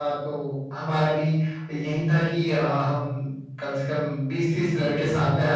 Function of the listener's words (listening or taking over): listening